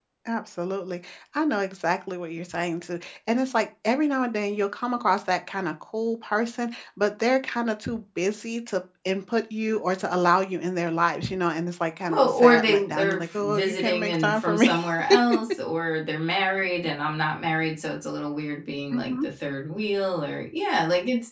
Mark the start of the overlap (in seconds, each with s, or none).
12.1 s